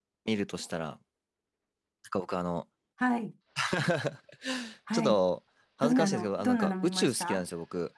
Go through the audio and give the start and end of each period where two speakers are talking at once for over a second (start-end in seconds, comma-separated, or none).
5.8-7.4